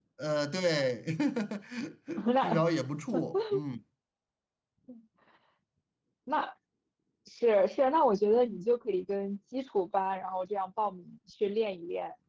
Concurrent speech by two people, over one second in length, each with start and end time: none

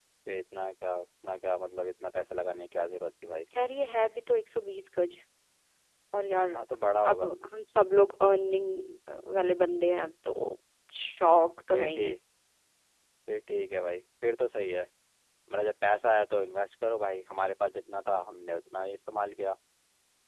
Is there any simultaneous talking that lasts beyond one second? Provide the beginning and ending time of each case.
none

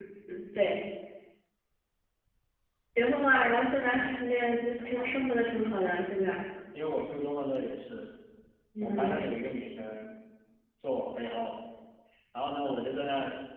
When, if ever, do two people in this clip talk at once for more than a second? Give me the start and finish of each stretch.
3.5-5.3

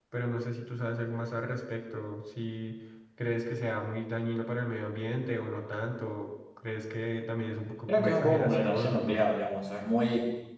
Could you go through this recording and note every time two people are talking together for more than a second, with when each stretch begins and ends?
7.9-9.2

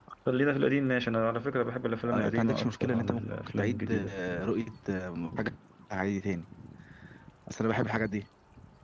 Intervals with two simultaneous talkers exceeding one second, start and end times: 2.1-4.2

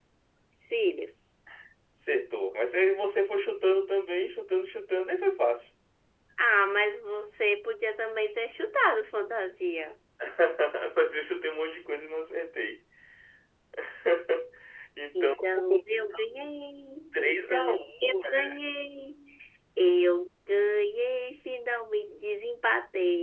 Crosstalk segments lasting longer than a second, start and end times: 17.1-18.5

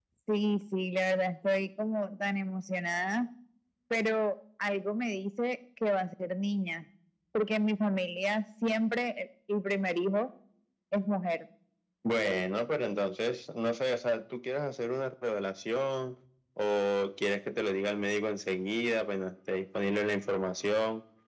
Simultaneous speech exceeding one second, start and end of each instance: none

